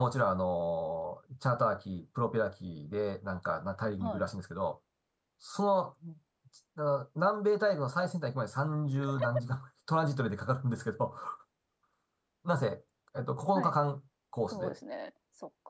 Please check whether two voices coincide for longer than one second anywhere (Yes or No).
No